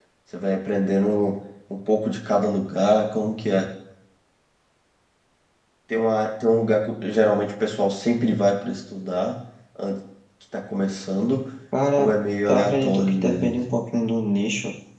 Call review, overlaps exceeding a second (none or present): present